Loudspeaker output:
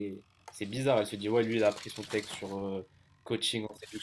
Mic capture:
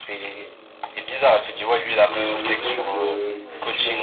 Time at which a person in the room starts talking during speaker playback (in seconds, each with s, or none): 1.9 s